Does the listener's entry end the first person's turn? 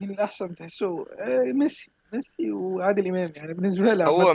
Yes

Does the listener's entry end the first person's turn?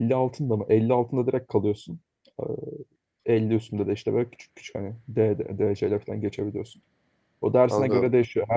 No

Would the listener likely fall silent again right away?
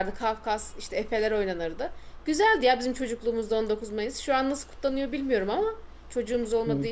Yes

